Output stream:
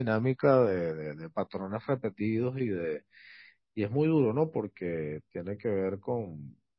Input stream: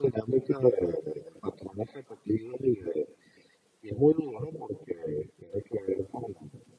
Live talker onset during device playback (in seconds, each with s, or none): none